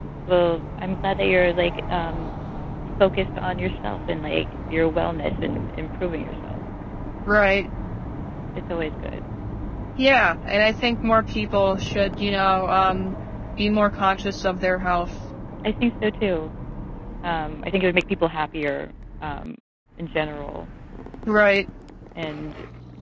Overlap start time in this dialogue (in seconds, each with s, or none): none